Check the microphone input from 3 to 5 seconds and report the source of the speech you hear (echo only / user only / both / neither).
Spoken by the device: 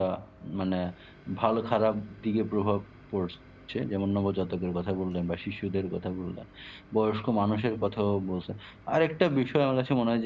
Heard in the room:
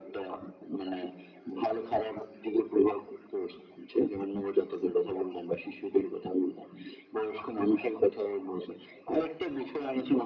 echo only